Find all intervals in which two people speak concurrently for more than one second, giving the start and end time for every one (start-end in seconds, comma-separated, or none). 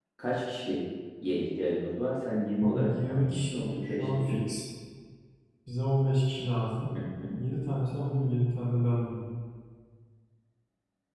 2.6-4.4